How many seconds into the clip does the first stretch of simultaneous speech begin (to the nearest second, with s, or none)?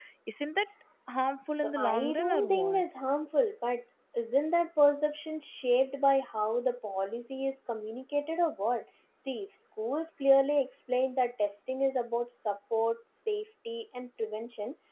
2 s